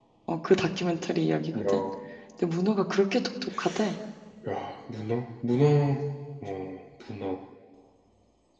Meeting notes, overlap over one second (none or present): none